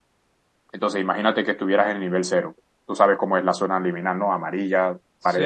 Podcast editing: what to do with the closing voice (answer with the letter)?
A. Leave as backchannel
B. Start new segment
B